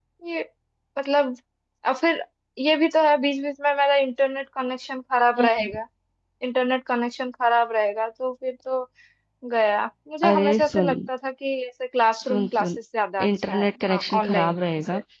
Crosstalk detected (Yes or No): Yes